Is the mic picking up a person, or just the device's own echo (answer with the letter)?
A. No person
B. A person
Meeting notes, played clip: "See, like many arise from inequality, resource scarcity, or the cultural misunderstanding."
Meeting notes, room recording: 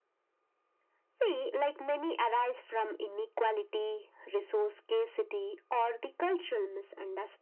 A